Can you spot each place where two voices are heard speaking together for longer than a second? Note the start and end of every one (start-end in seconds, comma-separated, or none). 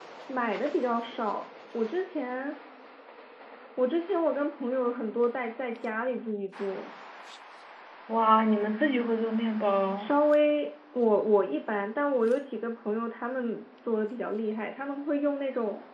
none